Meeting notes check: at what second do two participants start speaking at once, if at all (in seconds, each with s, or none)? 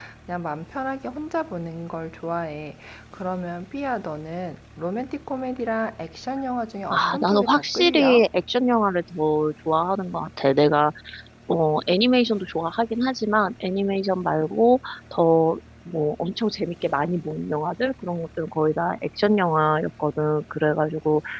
6.9 s